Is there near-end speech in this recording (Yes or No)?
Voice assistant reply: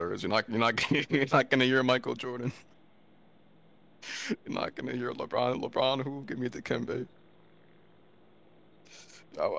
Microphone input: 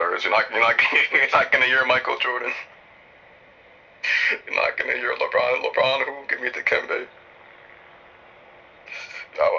No